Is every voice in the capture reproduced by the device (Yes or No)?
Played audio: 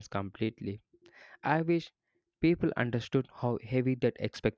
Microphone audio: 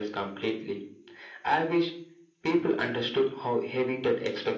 Yes